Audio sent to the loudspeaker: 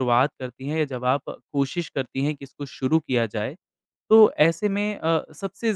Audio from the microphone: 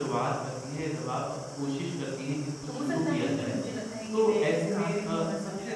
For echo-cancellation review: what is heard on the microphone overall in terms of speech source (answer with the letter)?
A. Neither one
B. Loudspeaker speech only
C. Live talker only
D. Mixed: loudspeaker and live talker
D